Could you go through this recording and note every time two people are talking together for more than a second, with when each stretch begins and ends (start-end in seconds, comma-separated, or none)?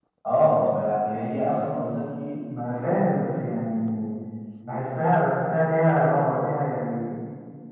none